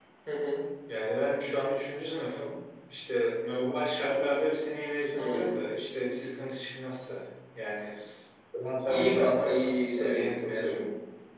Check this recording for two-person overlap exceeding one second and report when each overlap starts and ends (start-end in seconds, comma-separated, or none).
8.9-10.9